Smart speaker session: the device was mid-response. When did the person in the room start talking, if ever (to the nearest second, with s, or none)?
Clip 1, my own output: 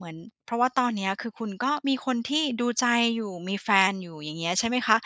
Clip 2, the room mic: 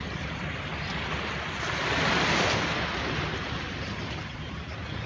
none